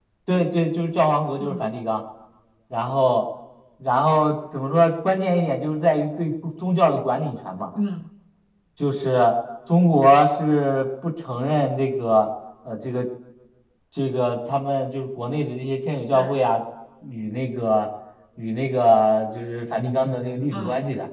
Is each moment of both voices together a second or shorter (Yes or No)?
Yes